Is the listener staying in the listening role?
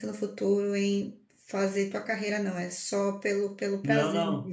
No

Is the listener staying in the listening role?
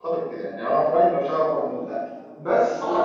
No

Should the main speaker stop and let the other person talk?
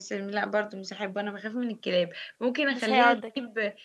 No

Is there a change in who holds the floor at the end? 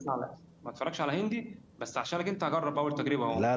Yes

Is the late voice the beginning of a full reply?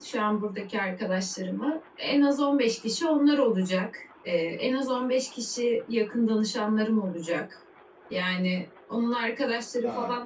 No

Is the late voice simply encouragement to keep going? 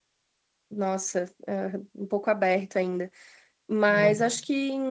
Yes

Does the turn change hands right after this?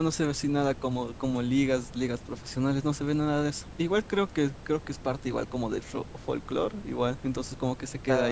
Yes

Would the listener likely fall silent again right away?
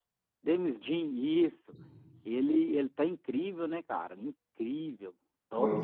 No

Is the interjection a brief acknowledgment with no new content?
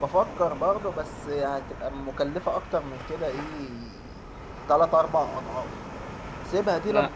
Yes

